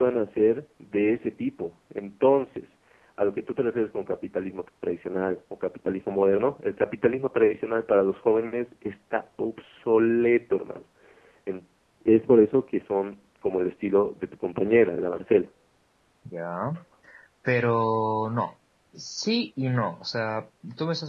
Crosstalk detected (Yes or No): No